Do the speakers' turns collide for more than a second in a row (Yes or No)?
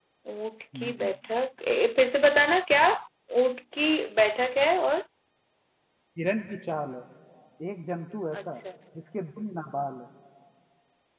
No